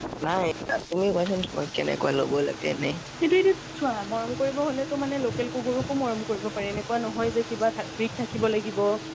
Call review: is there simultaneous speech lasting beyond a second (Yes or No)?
No